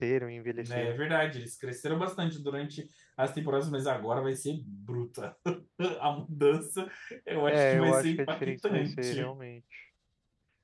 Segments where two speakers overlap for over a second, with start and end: 7.5-9.3

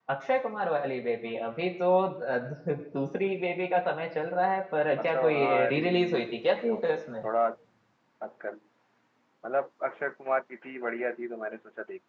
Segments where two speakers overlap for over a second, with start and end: 5.0-6.8

